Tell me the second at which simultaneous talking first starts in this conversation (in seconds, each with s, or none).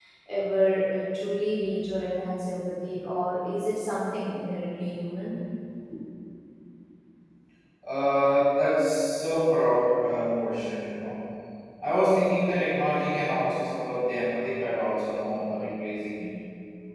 none